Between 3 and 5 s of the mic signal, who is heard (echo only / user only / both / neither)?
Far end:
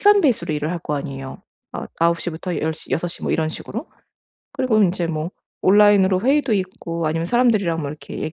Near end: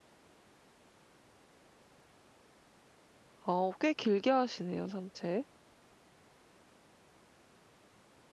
user only